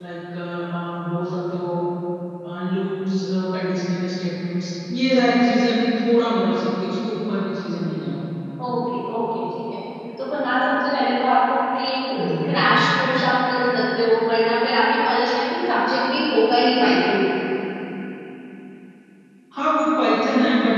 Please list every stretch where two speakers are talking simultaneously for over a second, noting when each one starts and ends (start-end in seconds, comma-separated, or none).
none